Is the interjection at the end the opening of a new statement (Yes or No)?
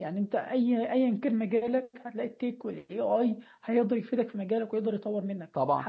No